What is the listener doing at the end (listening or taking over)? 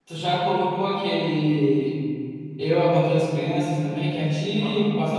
taking over